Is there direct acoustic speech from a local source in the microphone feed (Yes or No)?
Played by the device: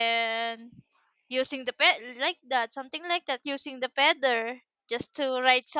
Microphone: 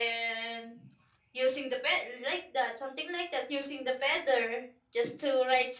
No